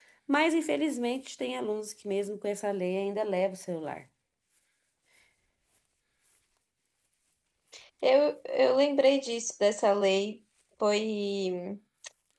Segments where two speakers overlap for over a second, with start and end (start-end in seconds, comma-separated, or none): none